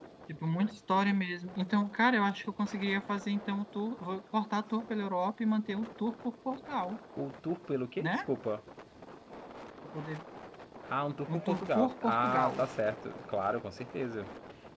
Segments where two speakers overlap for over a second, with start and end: 11.3-12.7

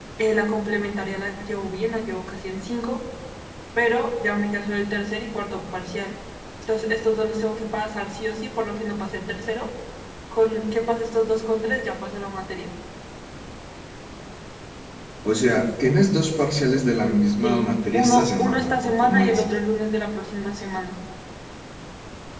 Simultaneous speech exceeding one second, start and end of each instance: 17.4-19.4

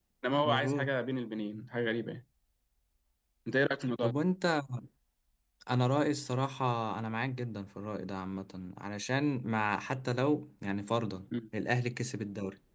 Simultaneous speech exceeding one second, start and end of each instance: none

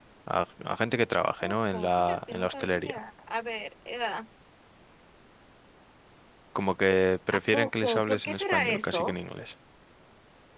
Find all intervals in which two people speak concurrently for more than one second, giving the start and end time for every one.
1.4-3.0, 7.3-9.2

